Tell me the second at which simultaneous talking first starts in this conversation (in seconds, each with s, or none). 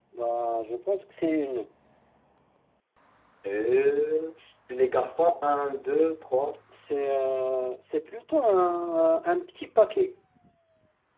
none